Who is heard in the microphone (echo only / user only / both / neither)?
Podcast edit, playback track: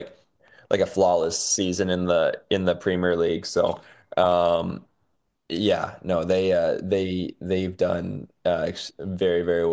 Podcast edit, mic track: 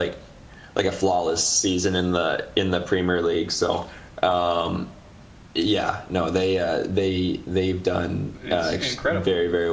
both